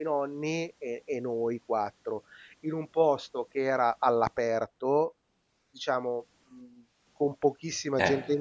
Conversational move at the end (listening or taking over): listening